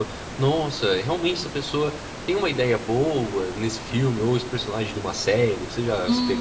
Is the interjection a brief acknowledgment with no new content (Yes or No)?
No